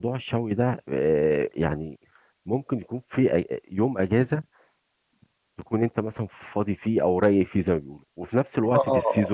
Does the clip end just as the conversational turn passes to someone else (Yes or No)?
No